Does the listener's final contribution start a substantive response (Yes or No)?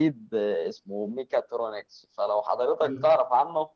No